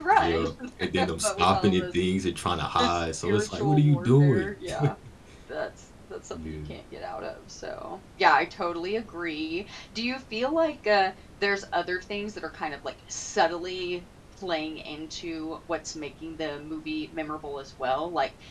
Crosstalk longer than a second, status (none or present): present